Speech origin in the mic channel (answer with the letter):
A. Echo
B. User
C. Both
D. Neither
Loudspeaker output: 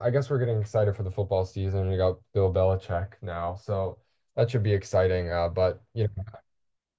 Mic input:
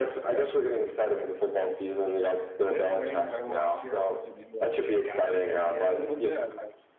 C